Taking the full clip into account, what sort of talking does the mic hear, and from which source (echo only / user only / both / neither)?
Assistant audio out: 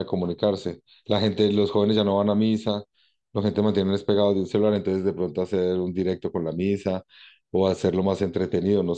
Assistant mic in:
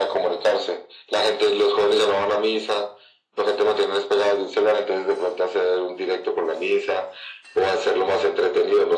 echo only